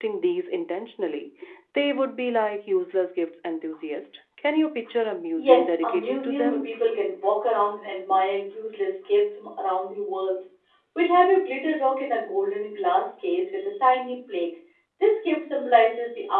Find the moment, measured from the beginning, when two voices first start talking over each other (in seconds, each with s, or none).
5.4 s